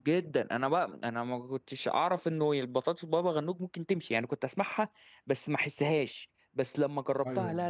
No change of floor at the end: Yes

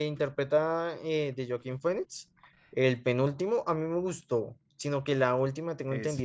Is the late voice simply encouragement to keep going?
Yes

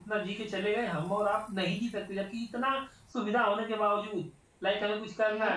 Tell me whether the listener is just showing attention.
Yes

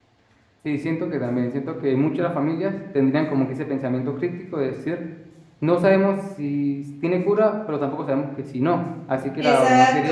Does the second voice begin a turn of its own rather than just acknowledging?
Yes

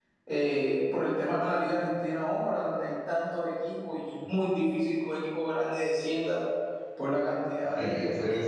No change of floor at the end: No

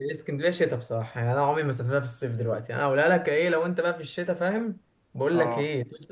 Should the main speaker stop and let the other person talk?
No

